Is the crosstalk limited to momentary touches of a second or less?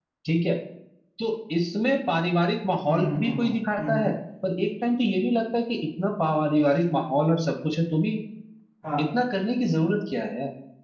No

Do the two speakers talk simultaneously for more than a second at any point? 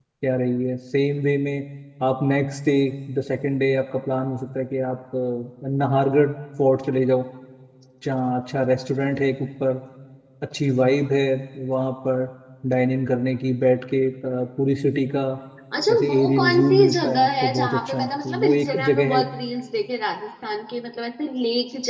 Yes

